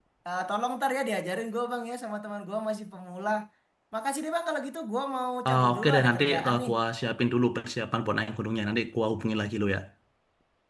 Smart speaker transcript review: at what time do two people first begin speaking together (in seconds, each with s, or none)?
5.4 s